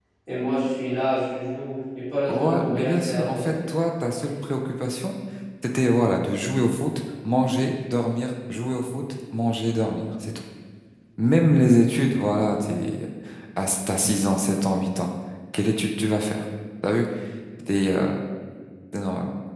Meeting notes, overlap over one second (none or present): present